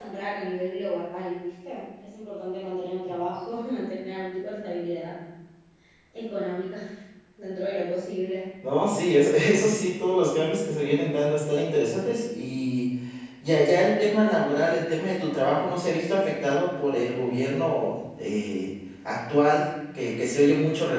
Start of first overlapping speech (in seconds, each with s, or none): none